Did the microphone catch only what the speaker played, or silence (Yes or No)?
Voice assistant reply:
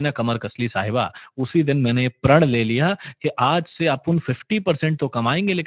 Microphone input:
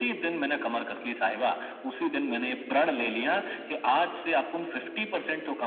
Yes